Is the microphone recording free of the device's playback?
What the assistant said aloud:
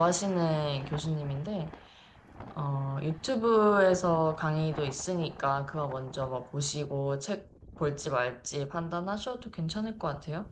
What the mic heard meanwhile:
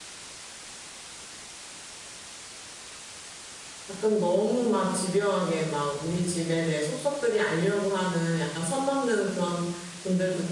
Yes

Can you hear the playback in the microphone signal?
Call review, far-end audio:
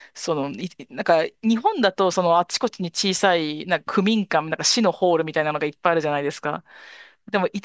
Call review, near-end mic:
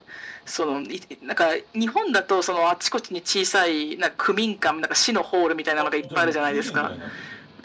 Yes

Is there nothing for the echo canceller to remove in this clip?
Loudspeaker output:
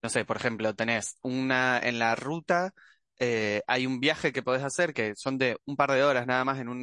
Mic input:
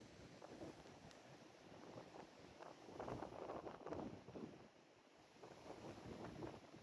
Yes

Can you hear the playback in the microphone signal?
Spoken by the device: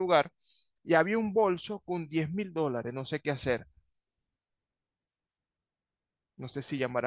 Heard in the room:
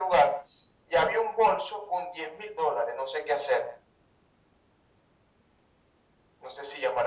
Yes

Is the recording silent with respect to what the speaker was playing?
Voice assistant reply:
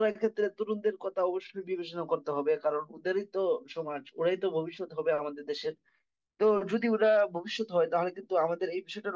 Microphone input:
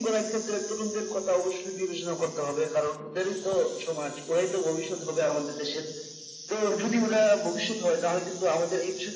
No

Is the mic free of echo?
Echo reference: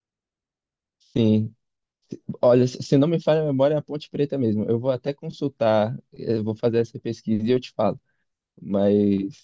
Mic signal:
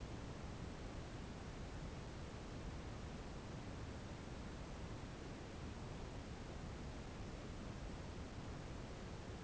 Yes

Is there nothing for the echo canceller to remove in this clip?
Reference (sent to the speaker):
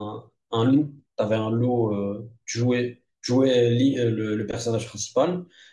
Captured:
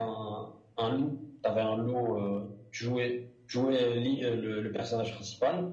No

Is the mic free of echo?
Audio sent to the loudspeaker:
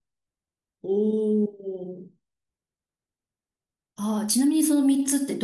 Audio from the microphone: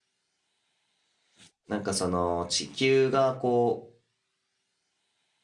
Yes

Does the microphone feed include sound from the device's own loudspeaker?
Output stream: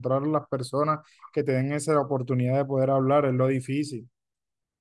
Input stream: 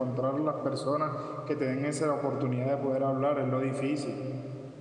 Yes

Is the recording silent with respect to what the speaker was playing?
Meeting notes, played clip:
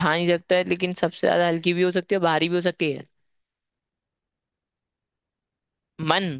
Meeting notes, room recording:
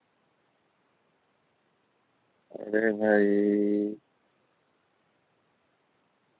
Yes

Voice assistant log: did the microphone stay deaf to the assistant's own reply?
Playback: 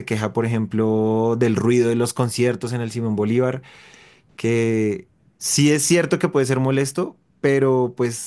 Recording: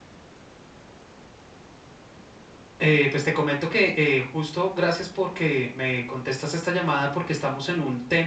Yes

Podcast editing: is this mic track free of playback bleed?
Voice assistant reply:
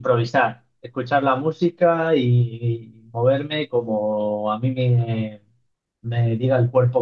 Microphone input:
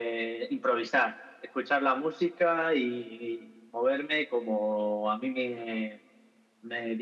No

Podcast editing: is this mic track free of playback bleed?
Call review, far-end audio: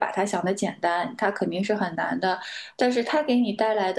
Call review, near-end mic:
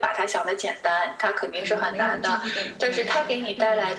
No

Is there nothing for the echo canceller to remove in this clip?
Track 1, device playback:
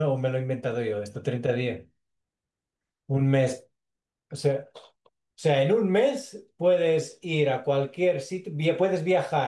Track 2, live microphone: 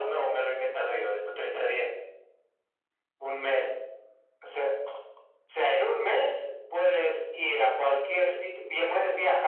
No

